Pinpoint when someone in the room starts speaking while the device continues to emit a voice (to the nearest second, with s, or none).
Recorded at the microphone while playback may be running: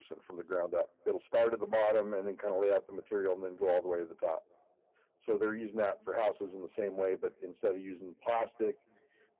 none